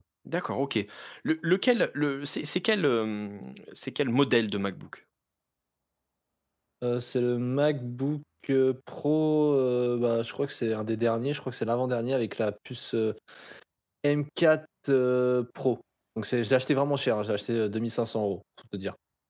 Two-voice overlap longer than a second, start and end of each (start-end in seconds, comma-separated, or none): none